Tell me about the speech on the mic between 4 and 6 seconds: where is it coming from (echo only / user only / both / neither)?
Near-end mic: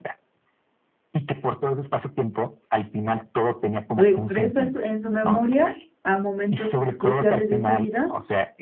both